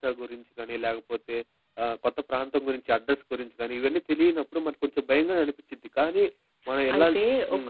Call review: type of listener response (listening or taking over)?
taking over